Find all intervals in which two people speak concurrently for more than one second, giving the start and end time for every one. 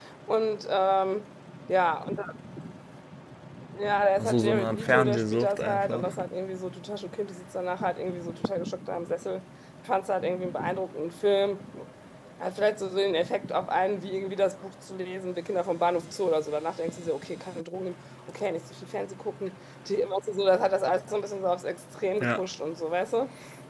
4.2-6.1

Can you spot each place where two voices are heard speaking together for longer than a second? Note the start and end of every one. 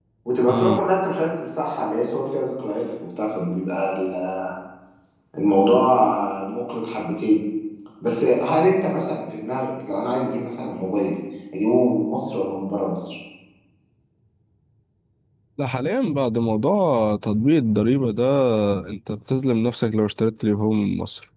none

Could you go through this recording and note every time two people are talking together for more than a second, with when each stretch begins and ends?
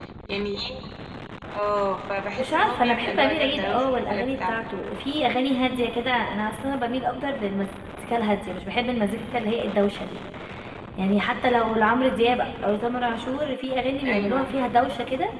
2.4-4.5

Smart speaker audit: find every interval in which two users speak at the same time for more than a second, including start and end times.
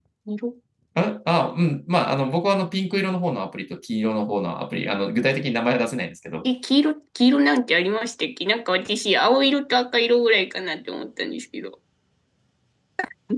none

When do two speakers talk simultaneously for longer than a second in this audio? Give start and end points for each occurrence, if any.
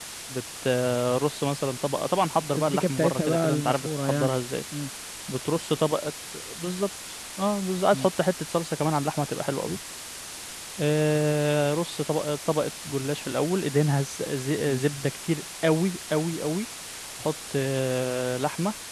2.5-4.3

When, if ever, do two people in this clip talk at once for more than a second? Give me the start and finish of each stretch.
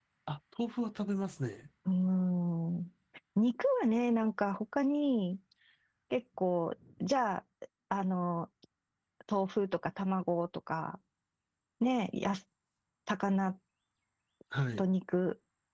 none

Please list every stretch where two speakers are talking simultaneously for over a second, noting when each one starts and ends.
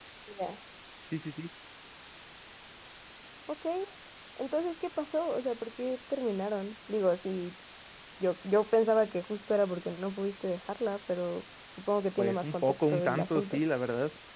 12.2-13.6

